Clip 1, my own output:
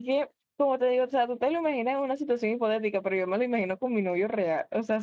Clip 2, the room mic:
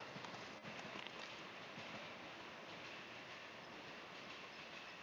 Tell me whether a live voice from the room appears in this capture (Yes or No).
No